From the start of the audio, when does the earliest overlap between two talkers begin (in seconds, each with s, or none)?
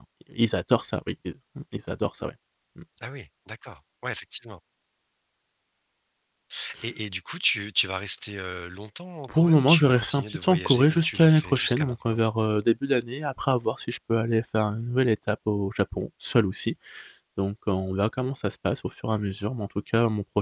9.3 s